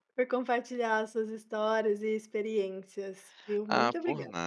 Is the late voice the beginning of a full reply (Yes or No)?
Yes